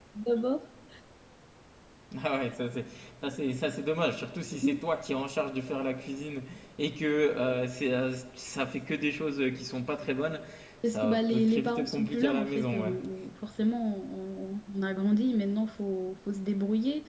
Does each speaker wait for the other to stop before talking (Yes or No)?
No